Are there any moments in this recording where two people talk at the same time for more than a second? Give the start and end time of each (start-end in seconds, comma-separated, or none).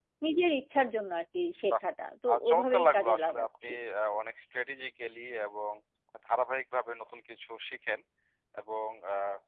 2.3-3.7